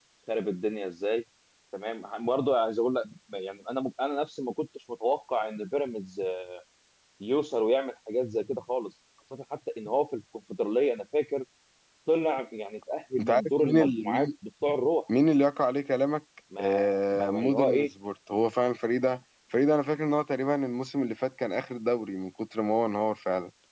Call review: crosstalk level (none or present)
present